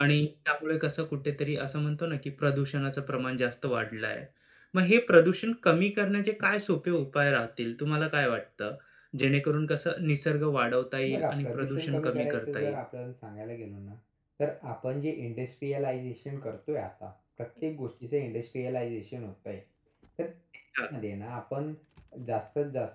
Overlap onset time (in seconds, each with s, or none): 11.1 s